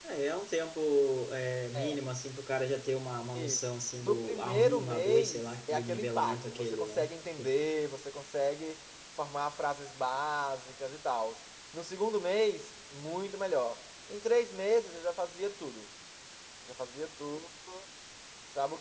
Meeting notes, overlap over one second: present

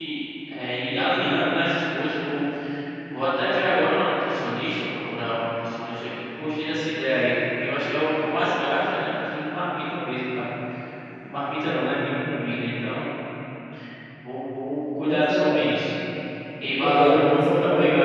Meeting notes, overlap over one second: present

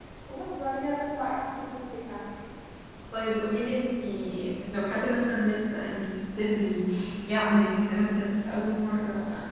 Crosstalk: none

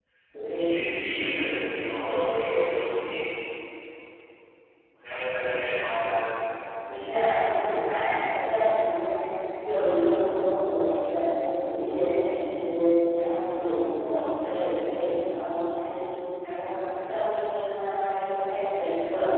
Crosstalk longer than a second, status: none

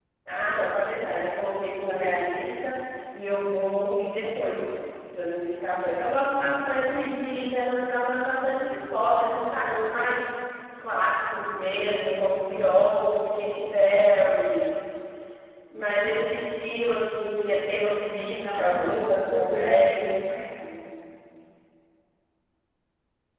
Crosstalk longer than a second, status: present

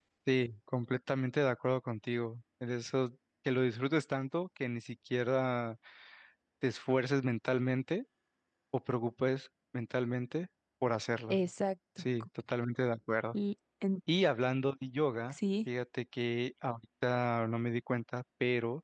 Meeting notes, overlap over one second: none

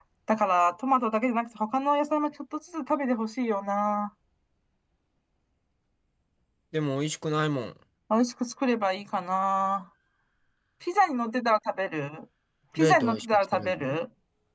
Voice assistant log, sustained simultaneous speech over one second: present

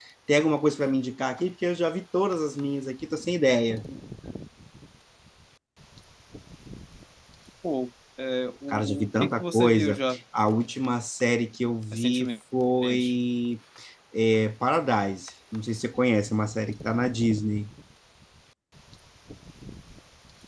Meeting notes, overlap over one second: present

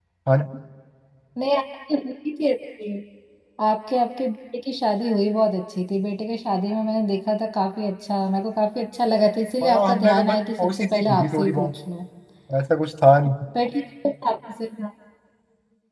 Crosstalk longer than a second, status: present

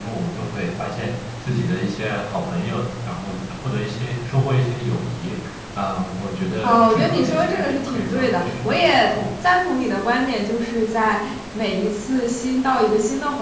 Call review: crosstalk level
present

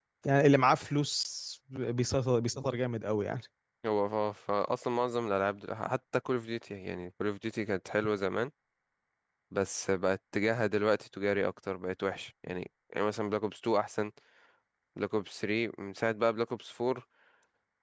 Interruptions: none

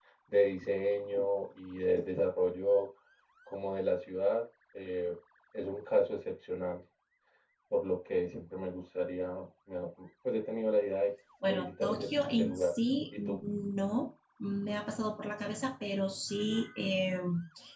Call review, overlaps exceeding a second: present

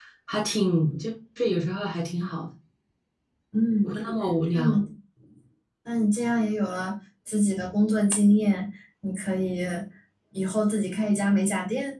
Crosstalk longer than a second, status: none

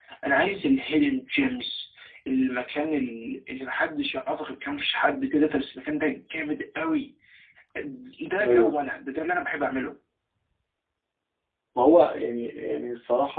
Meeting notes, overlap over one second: none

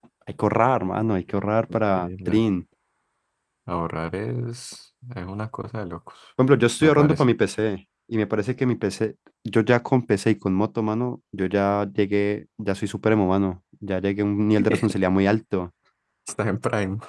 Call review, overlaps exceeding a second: none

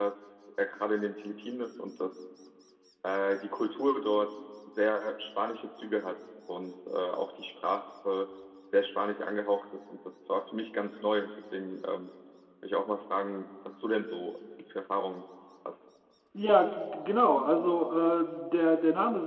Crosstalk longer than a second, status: none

